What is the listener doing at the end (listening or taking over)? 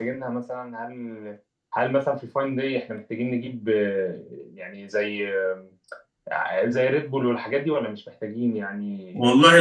taking over